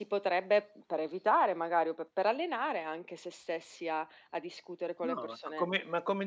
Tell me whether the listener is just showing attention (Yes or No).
No